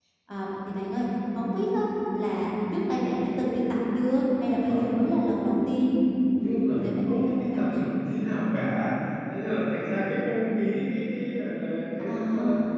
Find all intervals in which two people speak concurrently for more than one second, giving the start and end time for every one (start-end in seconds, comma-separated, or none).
6.4-7.8